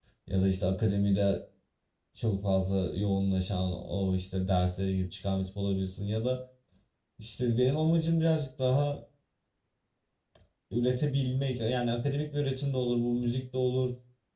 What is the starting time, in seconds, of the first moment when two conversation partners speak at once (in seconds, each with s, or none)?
none